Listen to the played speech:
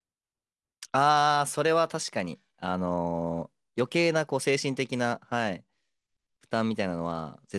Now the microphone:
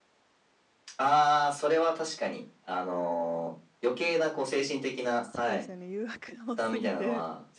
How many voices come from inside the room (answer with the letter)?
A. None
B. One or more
B